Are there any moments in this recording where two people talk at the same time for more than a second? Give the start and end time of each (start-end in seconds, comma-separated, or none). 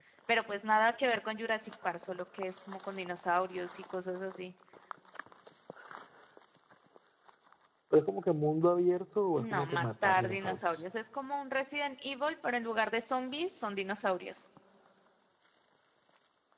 9.4-10.8